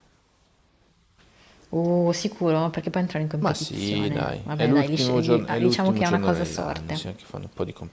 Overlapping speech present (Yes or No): Yes